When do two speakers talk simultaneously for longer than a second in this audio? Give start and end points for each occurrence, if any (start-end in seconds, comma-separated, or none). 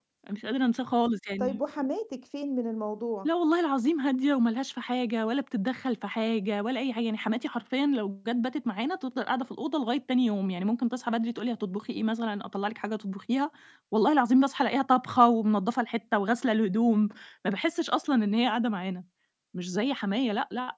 none